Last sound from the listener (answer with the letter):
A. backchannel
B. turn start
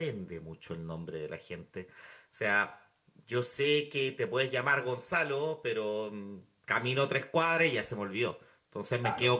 A